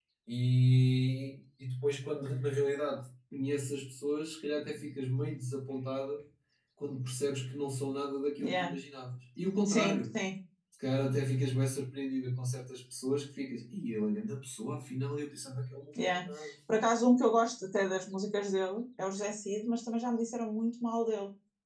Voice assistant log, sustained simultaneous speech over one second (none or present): none